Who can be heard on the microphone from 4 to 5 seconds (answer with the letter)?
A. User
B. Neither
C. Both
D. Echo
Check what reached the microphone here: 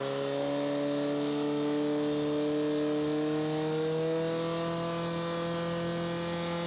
B